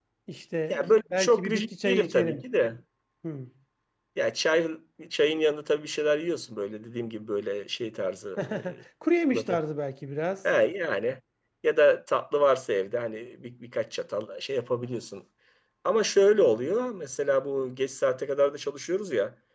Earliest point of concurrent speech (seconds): 0.7 s

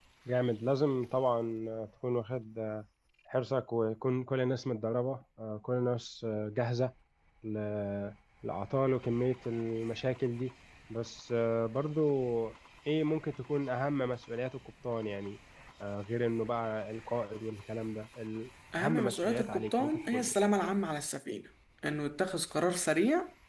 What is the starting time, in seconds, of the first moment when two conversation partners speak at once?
18.7 s

